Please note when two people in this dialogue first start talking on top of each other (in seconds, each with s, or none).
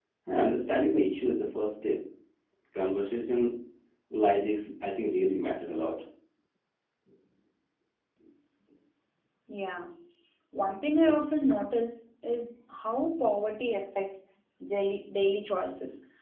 none